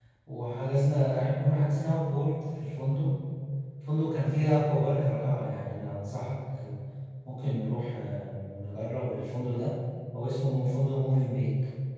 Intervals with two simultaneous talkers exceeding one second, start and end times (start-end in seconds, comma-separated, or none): none